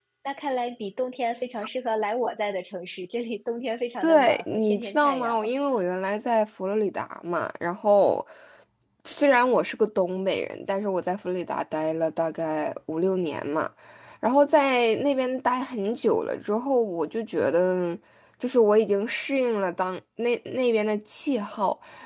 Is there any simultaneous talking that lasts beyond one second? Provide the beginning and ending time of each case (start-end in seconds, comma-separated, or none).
4.0-5.6